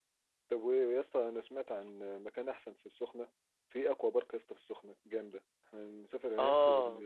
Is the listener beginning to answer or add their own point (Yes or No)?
No